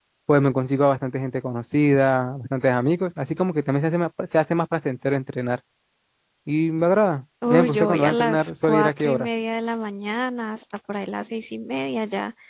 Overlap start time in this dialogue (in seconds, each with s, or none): 7.4 s